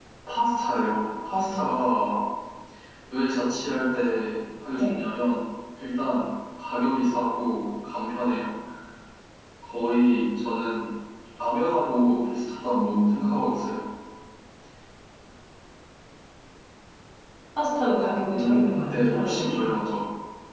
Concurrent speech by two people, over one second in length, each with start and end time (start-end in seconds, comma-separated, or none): 18.3-19.7